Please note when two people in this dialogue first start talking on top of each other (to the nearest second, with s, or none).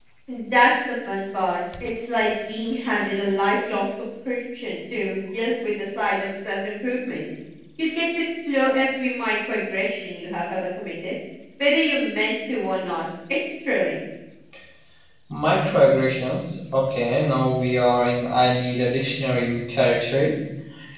none